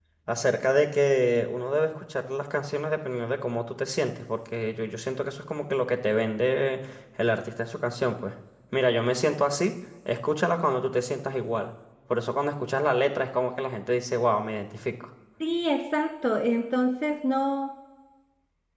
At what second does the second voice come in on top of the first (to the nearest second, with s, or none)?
none